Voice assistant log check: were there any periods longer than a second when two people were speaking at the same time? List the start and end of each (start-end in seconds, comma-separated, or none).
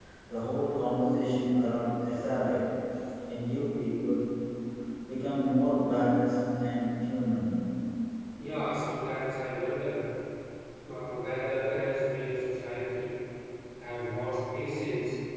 none